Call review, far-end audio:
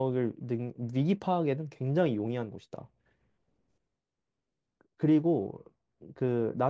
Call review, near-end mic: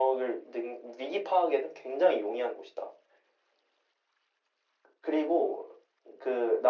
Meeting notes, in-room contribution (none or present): none